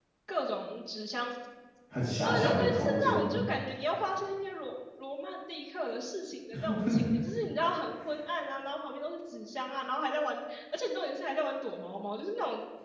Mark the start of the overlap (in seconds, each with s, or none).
2.2 s